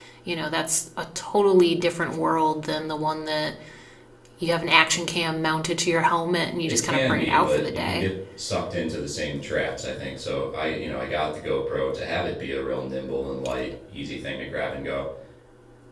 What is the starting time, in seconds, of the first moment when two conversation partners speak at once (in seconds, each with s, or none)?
6.7 s